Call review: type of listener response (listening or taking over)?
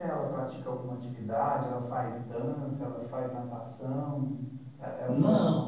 listening